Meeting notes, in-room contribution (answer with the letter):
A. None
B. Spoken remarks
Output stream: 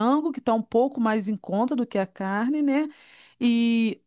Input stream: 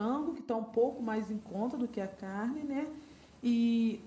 A